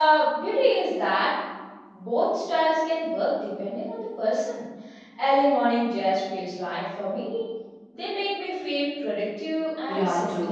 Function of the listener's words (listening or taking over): taking over